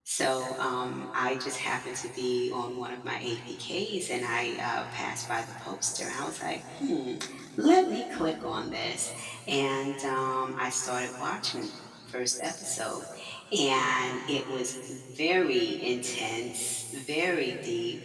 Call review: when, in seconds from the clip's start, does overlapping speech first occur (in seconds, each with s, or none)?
none